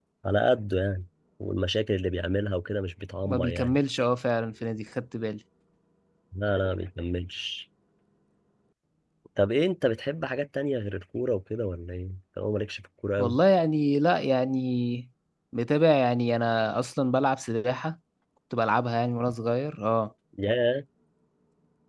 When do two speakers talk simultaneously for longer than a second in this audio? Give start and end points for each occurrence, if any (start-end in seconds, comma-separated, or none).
none